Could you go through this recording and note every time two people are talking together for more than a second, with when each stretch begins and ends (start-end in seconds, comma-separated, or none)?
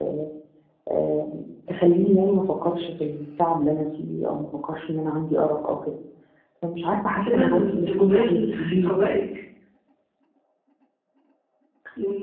7.1-9.0